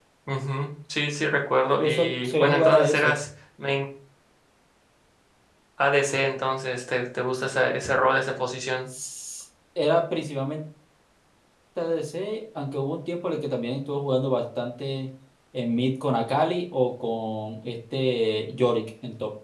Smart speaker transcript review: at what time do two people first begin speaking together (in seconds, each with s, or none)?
1.8 s